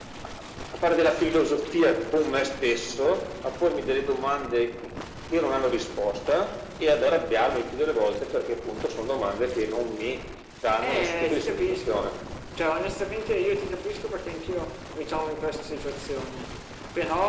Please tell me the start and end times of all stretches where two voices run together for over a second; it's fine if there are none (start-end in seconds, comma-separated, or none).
10.8-12.1